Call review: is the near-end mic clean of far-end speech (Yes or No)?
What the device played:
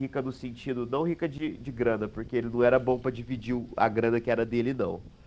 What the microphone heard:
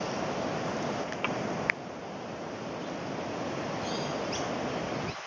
Yes